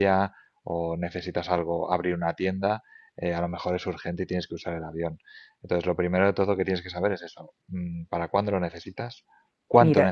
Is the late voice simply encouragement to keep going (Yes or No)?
No